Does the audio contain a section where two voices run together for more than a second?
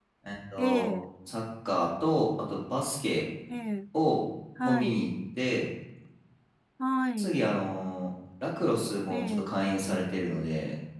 No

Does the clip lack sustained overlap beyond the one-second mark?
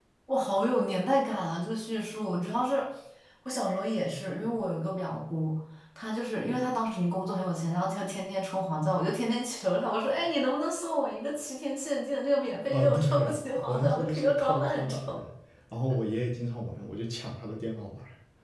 No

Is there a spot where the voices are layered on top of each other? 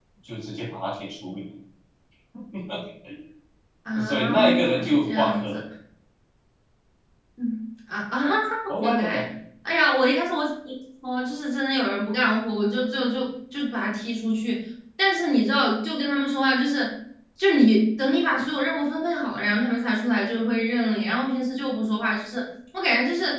Yes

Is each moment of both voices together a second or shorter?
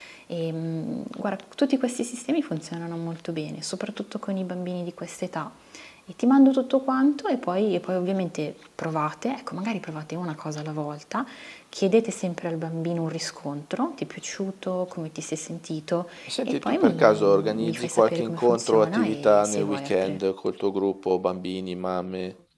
No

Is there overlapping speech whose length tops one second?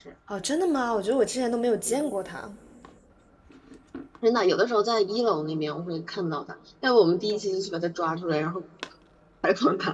No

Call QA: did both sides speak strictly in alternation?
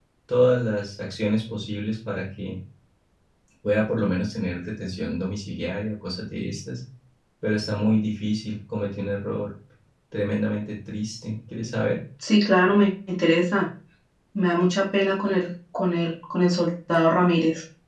Yes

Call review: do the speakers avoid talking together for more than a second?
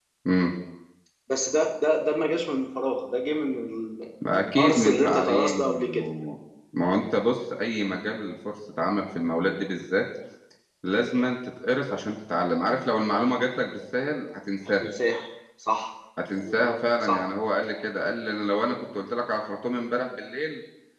No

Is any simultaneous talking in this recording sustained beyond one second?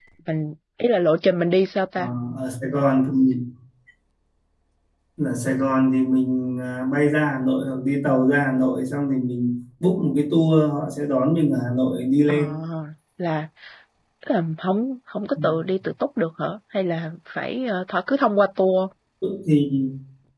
No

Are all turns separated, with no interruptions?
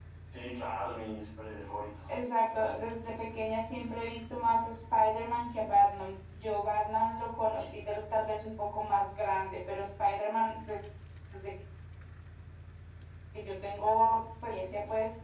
Yes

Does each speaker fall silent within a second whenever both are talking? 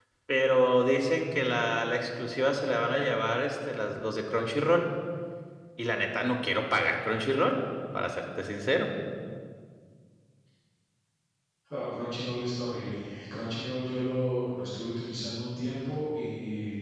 Yes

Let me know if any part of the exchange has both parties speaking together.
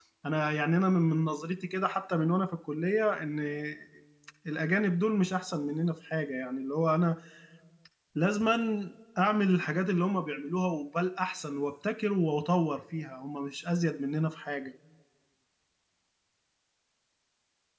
No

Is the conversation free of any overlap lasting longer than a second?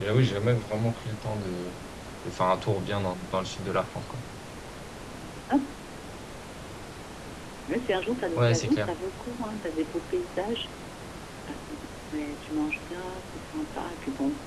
Yes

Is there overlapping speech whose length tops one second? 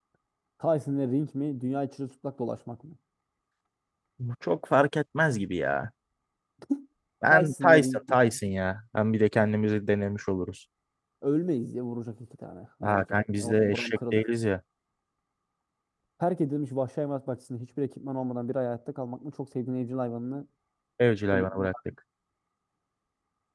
Yes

